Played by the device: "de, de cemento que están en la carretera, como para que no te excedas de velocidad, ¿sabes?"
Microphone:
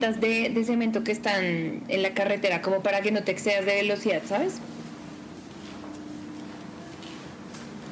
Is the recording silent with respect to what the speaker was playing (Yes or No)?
No